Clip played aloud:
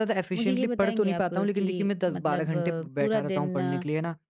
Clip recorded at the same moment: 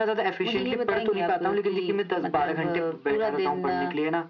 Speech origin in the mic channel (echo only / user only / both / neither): echo only